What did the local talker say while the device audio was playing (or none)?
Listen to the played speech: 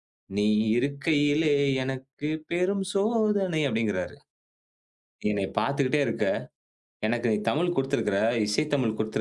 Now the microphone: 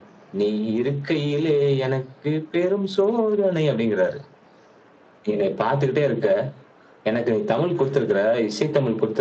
none